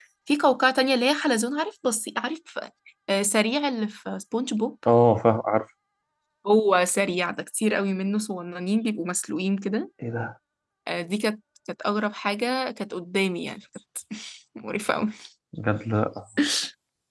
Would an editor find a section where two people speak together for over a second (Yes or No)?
No